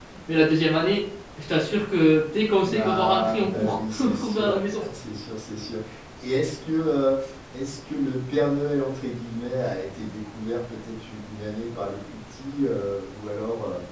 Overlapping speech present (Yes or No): Yes